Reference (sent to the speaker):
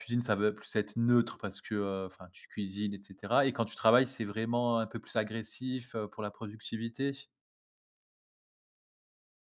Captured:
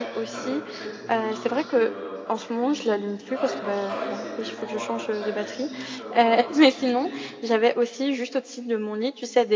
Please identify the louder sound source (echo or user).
user